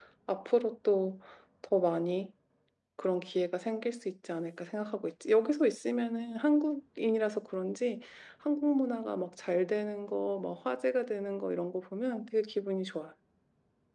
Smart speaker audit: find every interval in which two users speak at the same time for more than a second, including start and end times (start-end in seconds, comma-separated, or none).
none